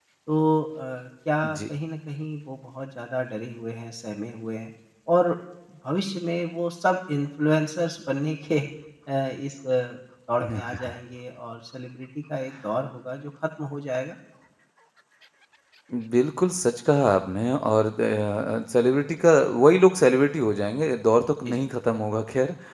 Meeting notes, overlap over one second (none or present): none